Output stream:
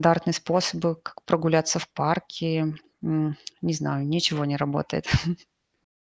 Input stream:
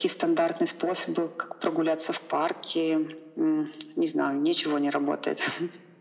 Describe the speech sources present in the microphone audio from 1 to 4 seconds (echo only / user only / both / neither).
echo only